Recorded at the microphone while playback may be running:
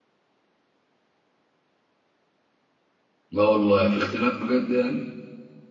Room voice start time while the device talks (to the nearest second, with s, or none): 3 s